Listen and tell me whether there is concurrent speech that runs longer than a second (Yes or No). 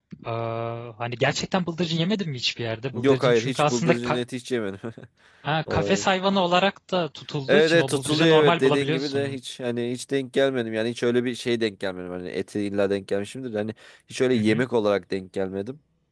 Yes